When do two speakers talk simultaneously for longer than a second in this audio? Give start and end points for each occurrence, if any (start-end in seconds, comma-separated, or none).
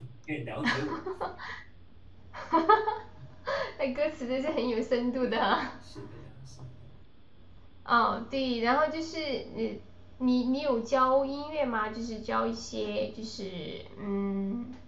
none